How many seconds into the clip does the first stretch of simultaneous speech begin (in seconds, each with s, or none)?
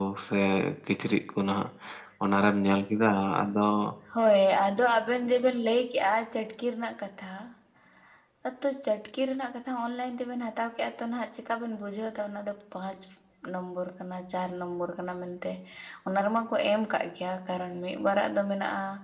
none